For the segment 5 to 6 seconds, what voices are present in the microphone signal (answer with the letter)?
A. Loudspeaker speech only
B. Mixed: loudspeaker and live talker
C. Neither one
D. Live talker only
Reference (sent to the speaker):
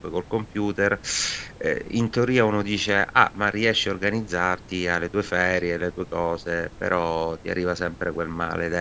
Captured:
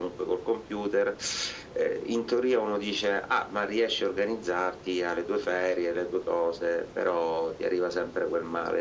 A